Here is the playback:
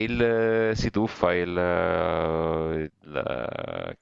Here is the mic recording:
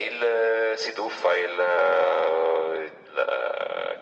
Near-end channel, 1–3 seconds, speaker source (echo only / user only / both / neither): echo only